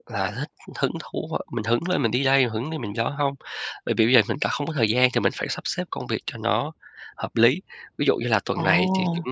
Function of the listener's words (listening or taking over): listening